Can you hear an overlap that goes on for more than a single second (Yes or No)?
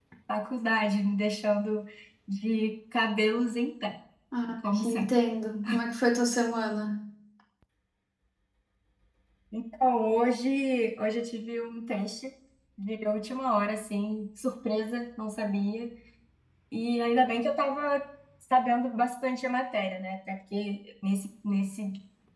No